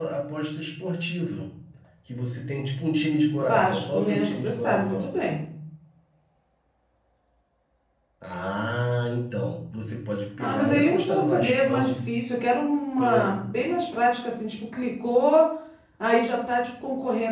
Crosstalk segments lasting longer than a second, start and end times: 3.4-5.1, 10.4-12.0

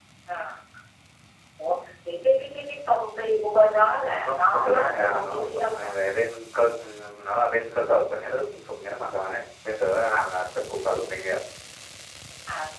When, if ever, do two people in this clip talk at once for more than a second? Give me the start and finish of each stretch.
4.2-5.9

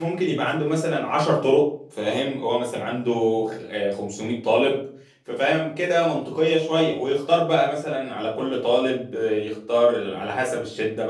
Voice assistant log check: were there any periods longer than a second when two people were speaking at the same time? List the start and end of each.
none

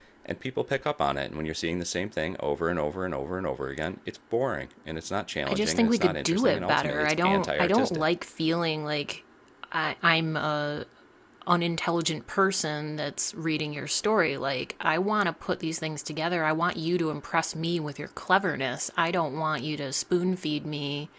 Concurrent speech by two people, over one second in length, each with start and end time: 5.5-8.1

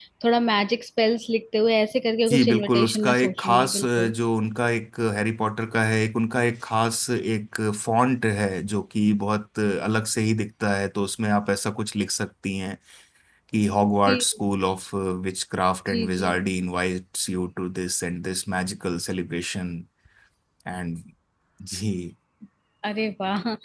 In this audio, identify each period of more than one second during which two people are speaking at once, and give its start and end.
2.3-4.1

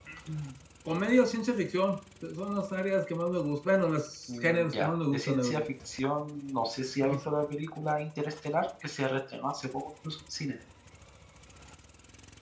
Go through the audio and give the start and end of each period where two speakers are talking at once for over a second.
4.3-5.7

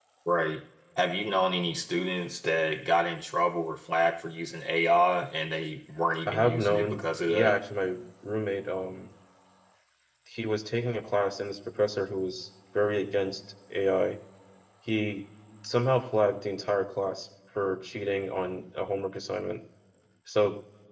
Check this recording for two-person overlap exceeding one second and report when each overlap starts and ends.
6.3-7.6

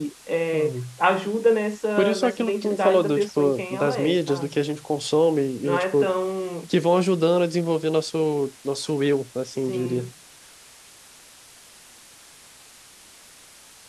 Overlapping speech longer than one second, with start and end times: 2.0-4.5

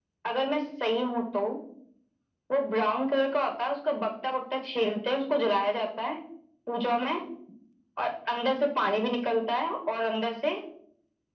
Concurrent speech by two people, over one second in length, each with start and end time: none

